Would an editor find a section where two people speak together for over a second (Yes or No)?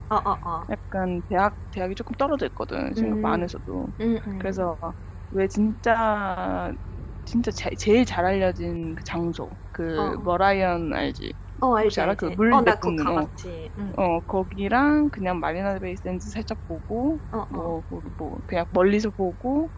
Yes